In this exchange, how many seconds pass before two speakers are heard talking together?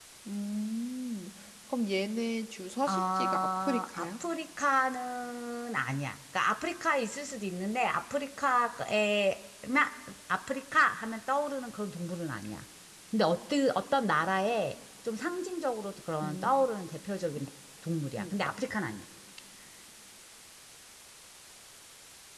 2.9 s

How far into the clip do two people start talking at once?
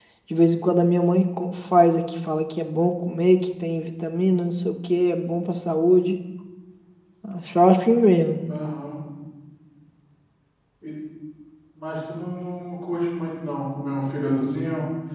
none

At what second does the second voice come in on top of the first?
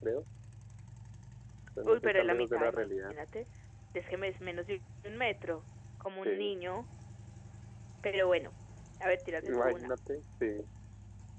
1.9 s

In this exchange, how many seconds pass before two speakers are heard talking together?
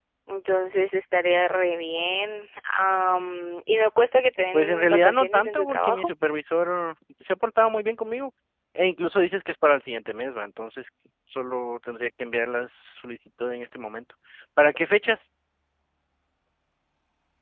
4.5 s

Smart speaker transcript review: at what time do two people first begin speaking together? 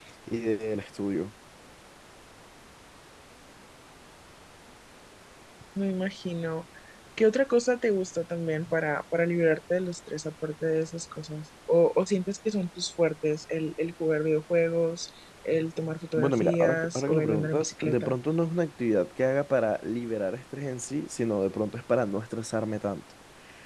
16.2 s

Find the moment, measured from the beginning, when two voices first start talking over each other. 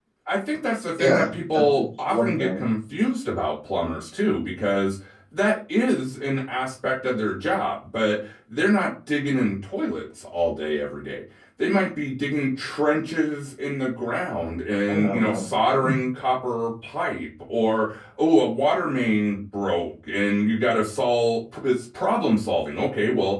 1.0 s

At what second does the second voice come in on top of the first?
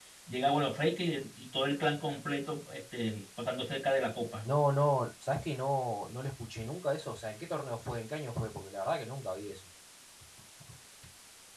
none

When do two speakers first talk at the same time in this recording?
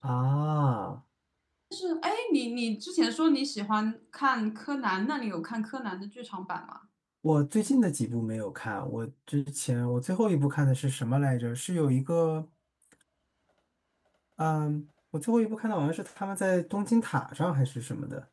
none

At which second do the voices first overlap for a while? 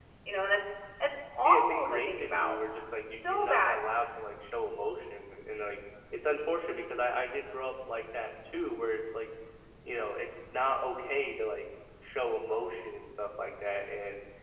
1.4 s

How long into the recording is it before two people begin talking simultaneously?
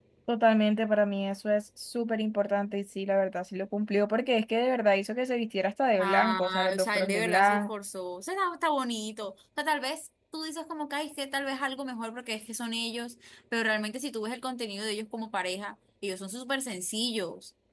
6.0 s

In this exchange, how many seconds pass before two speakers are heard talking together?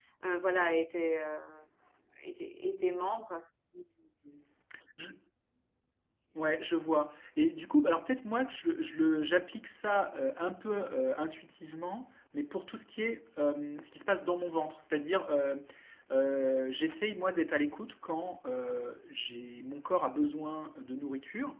none

